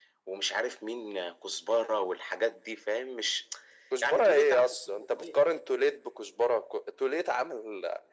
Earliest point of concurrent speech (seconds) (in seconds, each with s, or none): 4.0 s